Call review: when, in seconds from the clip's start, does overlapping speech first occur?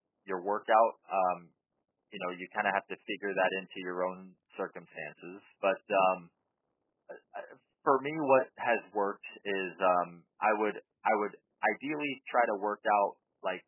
none

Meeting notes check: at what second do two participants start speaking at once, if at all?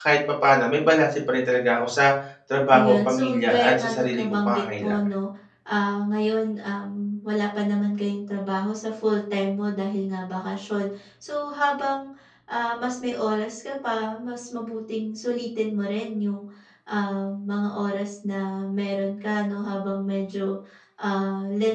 2.7 s

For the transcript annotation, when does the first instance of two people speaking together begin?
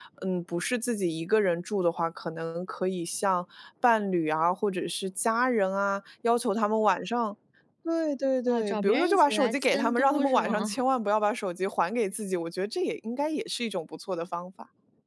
8.5 s

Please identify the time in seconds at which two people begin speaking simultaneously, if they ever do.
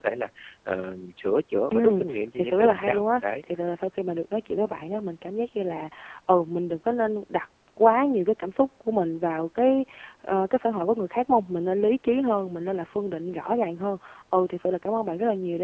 1.7 s

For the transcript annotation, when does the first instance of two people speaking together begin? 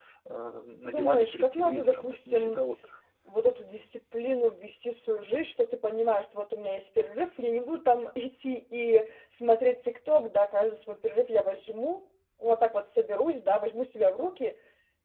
0.8 s

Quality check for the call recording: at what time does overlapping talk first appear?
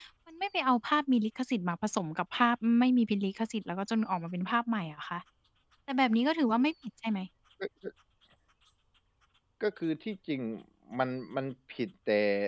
none

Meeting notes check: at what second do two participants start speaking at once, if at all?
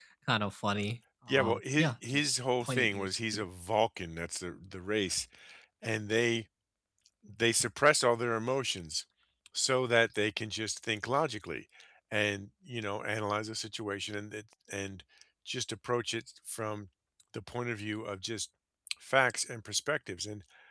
1.3 s

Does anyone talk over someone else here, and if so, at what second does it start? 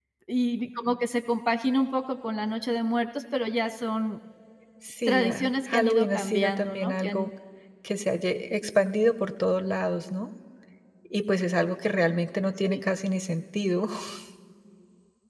5.1 s

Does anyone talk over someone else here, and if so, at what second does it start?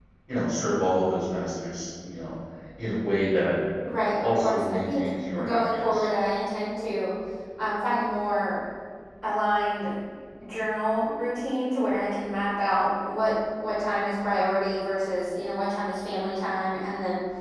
4.2 s

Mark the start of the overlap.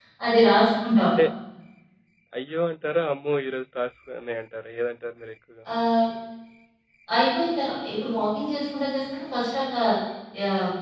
none

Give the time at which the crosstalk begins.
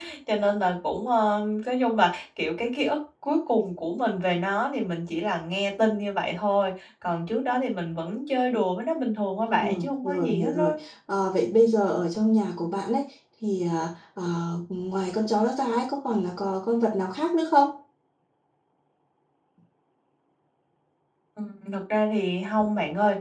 9.5 s

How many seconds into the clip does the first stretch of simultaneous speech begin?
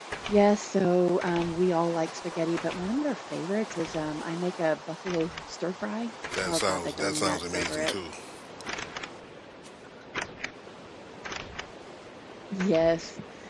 6.3 s

